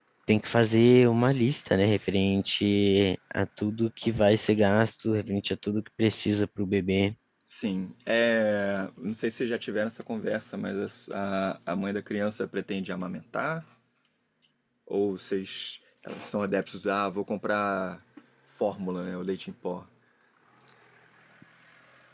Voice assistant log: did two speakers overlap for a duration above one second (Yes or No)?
No